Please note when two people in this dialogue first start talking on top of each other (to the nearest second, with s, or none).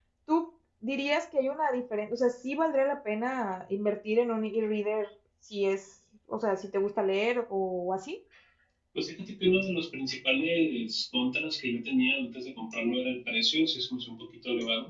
none